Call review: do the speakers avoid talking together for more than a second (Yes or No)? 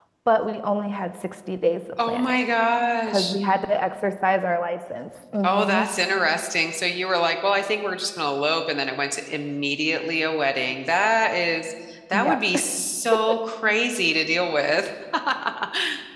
Yes